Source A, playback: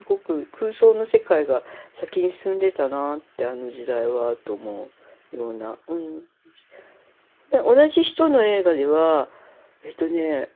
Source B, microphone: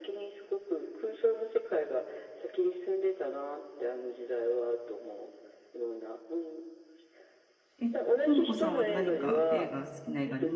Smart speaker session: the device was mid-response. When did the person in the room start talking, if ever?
8 s

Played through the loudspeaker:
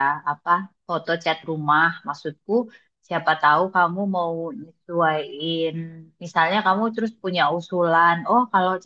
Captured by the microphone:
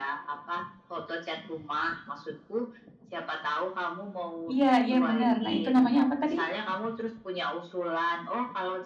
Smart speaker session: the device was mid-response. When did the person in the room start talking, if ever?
5 s

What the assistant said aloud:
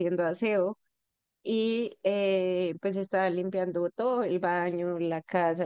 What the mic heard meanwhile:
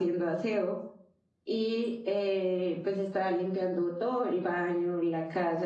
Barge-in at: none

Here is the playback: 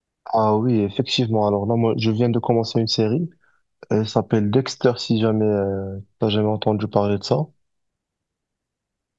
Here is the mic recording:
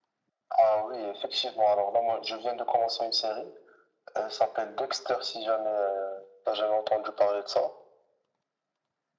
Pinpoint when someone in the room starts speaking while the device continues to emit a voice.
none

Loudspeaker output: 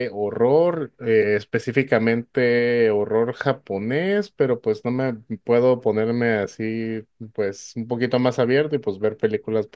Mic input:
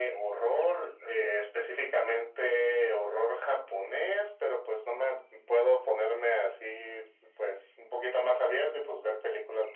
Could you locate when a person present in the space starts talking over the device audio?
none

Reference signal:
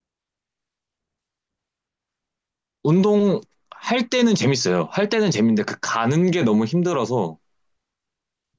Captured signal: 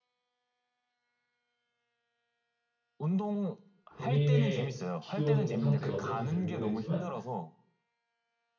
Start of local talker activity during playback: 4 s

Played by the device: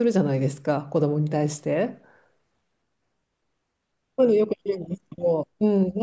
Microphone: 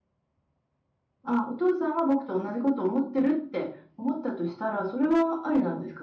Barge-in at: 1 s

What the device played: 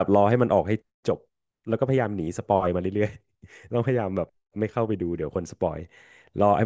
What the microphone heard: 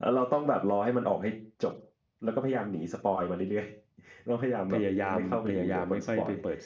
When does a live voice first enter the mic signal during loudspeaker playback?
5 s

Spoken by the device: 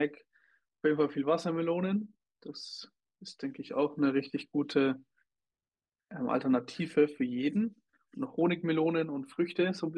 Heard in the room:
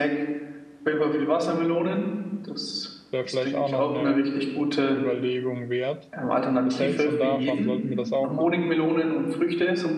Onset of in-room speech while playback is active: 3 s

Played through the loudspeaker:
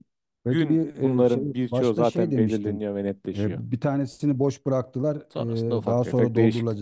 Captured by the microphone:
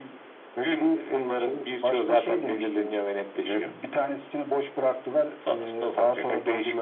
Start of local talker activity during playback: none

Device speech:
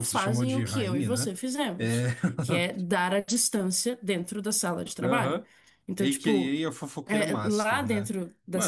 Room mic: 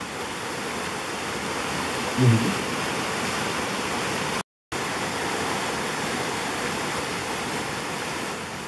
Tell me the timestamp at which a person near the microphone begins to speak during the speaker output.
2 s

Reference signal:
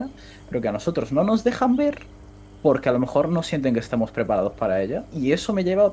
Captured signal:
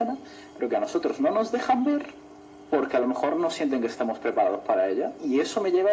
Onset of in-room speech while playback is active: none

